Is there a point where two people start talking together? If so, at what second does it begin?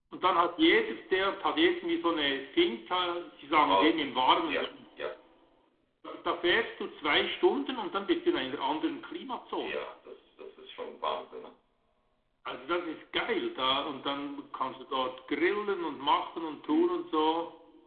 3.5 s

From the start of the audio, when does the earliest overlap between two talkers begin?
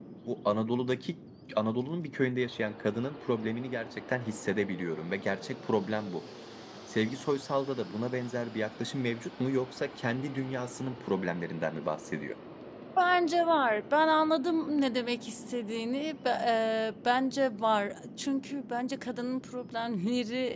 none

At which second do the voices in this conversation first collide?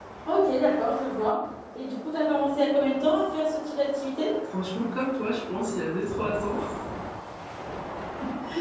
none

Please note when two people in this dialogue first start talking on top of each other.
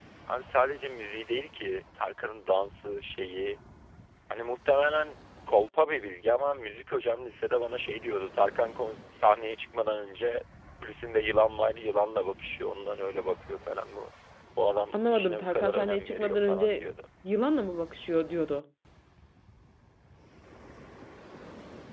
14.9 s

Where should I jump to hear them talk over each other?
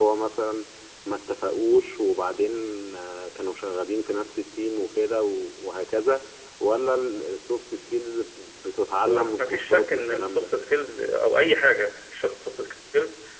9.0 s

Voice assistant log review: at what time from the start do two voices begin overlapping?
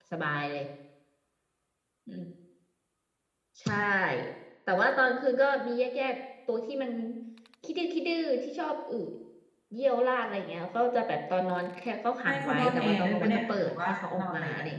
12.2 s

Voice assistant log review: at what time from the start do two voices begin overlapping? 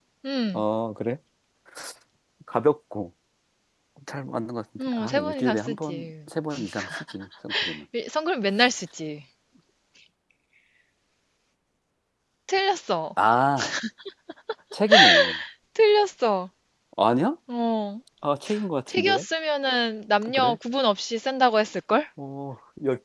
4.8 s

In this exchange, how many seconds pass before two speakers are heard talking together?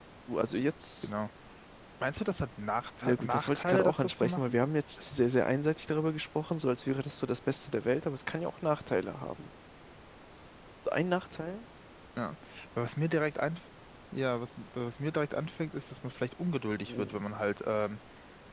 3.0 s

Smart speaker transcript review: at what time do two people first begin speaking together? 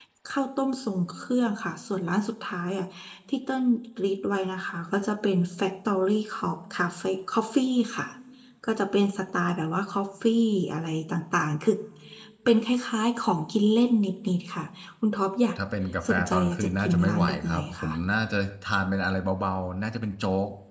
16.1 s

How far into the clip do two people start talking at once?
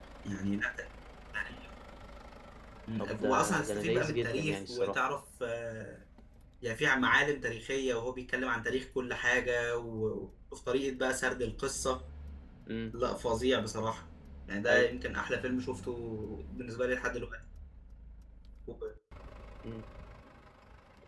3.2 s

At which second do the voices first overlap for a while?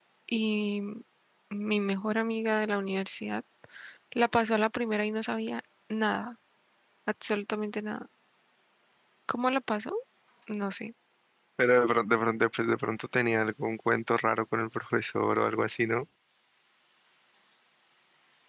none

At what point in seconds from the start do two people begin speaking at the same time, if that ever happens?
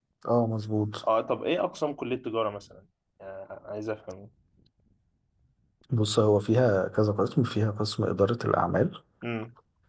none

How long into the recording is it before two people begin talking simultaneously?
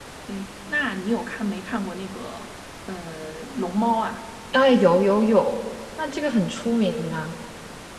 none

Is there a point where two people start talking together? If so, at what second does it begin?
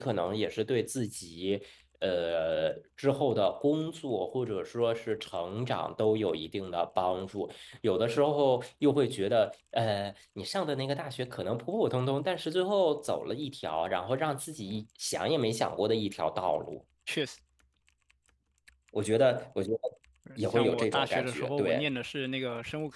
20.5 s

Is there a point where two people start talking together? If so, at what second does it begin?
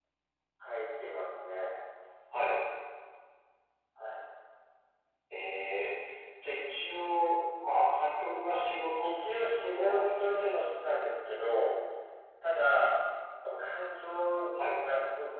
9.0 s

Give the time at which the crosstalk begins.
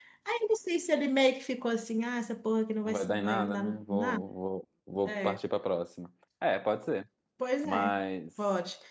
2.8 s

